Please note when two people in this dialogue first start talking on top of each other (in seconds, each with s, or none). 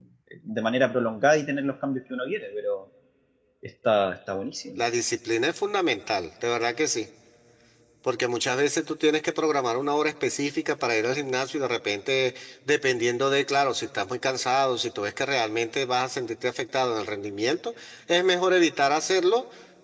none